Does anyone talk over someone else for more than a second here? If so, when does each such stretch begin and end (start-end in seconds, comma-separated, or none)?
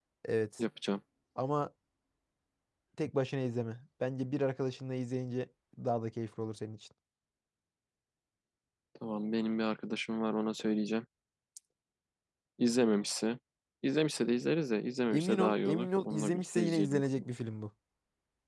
15.1-17.0